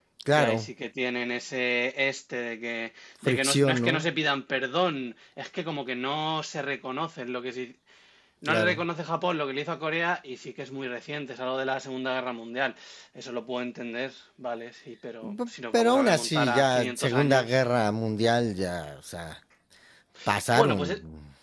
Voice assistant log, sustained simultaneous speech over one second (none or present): present